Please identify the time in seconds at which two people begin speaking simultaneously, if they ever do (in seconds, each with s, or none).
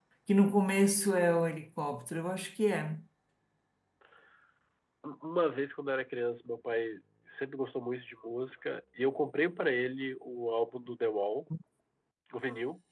none